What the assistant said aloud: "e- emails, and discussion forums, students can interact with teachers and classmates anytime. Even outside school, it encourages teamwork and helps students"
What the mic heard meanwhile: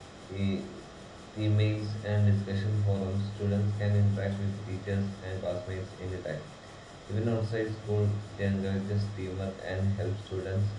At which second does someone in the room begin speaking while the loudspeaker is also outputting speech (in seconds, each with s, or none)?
none